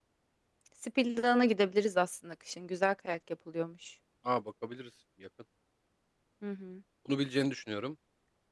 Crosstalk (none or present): none